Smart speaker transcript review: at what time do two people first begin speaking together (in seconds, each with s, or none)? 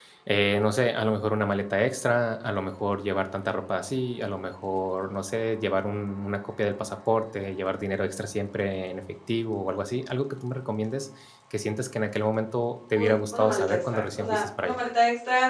12.9 s